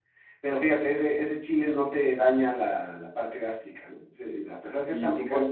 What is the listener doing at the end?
taking over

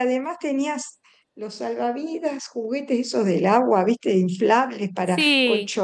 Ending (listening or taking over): listening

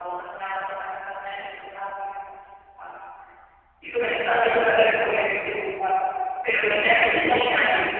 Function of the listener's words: listening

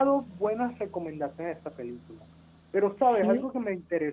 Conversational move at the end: listening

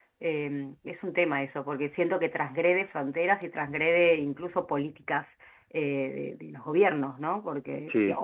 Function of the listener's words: listening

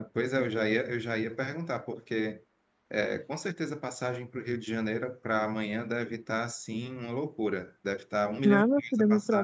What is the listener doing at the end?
taking over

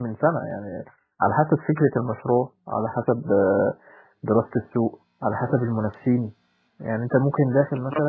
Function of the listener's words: listening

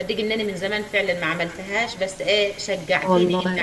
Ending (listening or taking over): listening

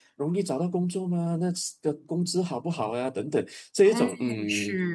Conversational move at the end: taking over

